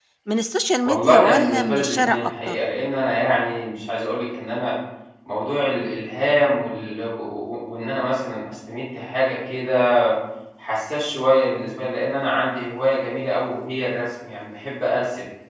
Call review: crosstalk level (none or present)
present